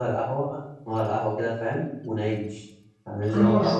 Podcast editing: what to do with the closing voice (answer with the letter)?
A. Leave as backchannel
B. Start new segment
B